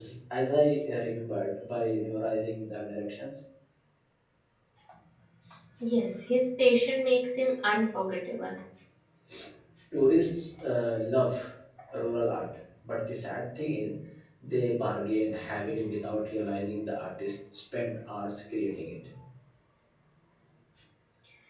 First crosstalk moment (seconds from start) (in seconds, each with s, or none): none